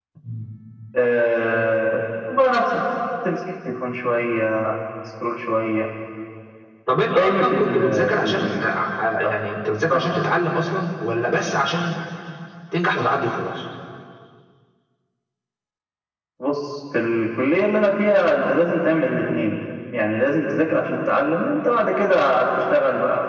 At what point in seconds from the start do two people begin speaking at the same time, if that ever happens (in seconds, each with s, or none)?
7.2 s